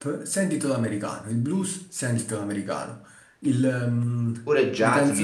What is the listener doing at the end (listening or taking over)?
taking over